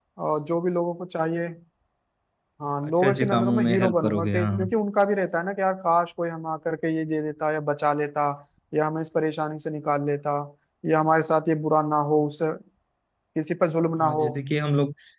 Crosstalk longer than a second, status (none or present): present